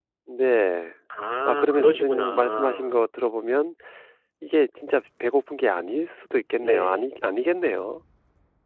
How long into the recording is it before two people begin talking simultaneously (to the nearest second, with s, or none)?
1 s